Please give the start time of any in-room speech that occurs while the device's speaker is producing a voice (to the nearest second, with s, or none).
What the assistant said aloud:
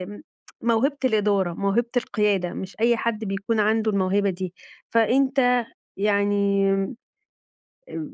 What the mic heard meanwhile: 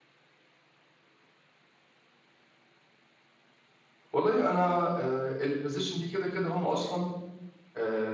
4 s